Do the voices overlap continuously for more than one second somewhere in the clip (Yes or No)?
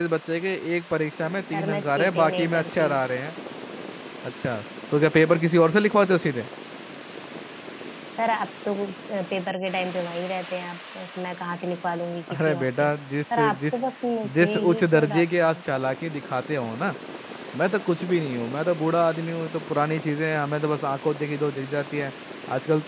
Yes